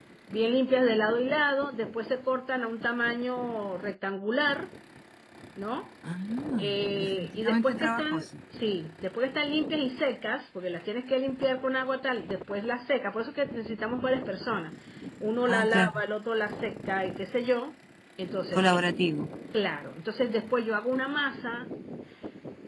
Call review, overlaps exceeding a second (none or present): present